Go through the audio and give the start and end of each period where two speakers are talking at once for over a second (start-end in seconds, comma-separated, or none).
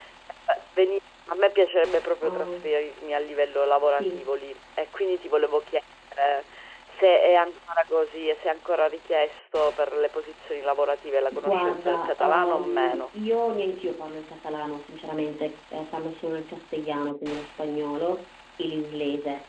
11.4-13.1